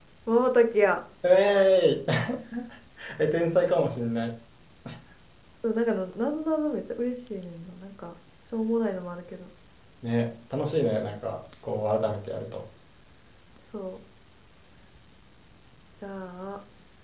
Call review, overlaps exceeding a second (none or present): none